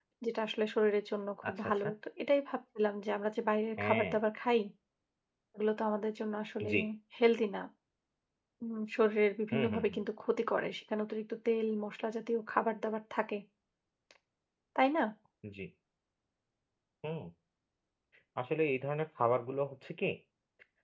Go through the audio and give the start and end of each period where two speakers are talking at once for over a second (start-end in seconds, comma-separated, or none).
none